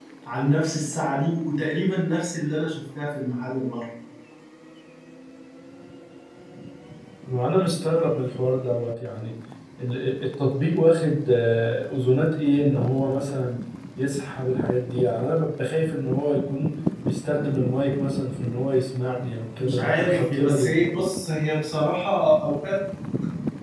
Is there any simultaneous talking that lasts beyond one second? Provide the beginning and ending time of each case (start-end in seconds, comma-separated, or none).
19.6-20.8